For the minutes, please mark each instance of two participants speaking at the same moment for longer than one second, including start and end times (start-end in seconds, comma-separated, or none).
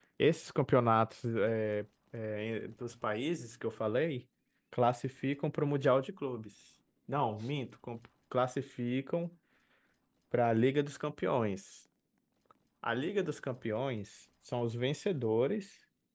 none